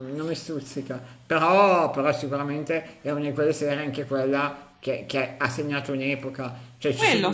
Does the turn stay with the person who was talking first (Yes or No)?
Yes